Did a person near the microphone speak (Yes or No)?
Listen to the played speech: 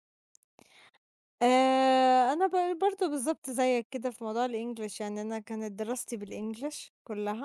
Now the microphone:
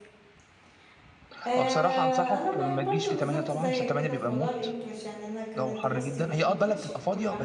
Yes